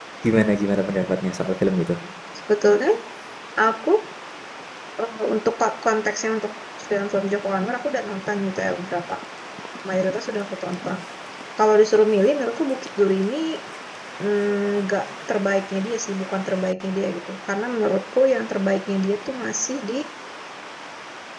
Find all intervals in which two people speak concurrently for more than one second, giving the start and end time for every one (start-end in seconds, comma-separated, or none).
none